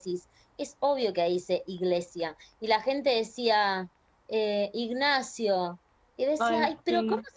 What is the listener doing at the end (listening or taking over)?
listening